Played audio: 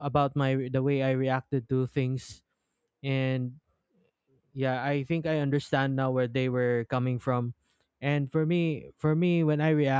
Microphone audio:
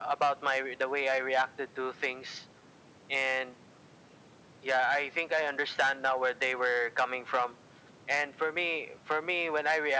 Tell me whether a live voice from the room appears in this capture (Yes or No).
No